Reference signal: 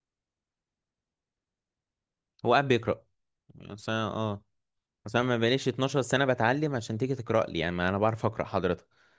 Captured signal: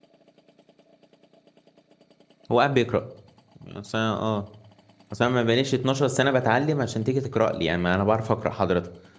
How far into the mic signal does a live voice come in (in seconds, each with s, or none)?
none